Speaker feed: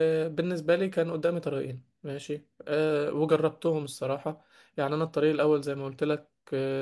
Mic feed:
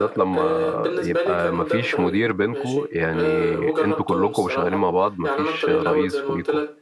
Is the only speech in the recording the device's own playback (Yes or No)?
No